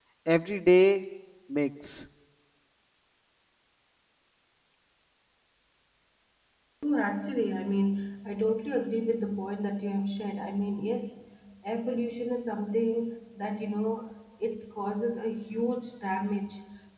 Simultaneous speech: No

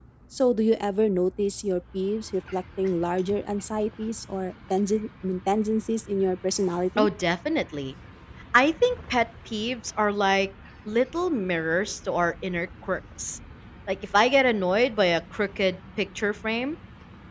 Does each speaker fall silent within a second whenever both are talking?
Yes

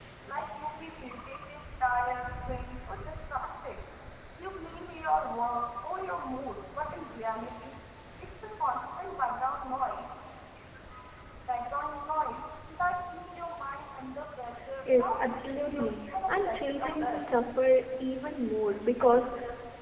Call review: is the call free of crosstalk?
No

